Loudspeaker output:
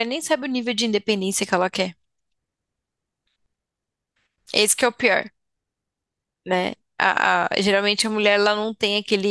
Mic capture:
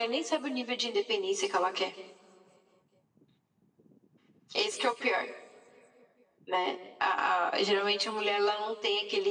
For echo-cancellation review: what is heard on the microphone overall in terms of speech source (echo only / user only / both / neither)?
echo only